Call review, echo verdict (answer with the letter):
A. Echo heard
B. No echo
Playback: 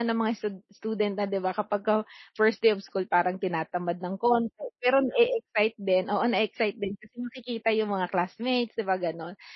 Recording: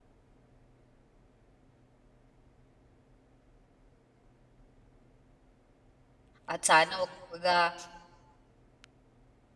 B